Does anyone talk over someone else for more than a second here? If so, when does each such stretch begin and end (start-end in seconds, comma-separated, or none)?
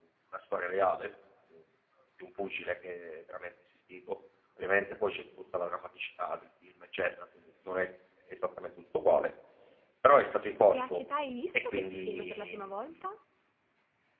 11.5-12.8